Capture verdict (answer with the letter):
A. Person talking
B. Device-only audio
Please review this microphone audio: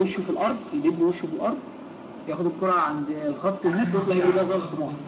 A